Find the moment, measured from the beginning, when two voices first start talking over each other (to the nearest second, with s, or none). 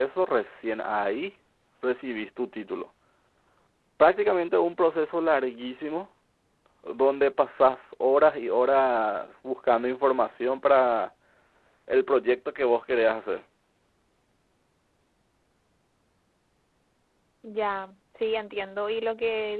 none